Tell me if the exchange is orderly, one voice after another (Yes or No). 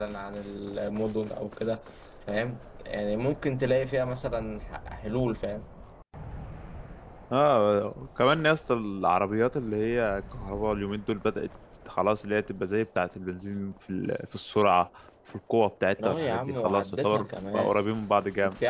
No